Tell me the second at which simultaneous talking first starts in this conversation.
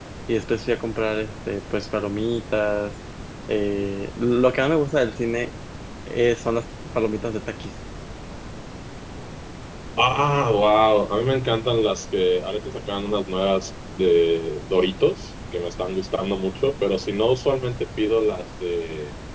none

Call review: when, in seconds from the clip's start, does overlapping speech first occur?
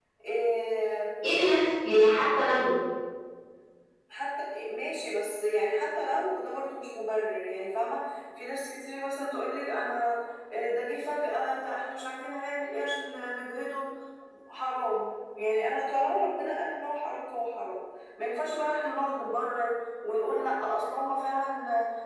none

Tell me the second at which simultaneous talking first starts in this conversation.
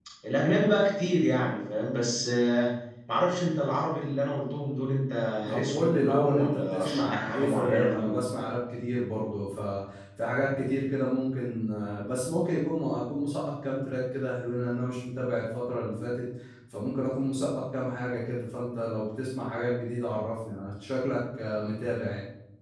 5.5 s

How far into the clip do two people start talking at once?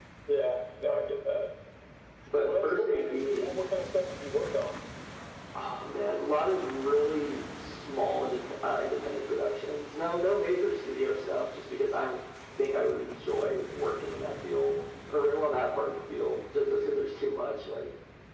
2.4 s

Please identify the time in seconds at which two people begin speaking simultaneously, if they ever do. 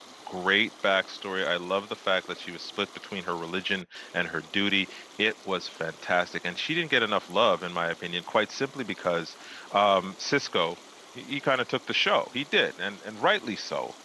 none

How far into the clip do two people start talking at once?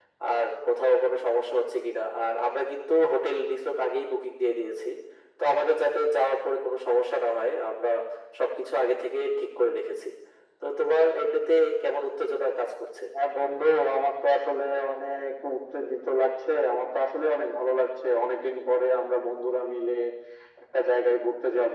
none

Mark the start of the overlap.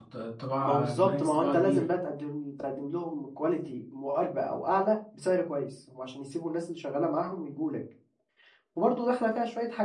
0.6 s

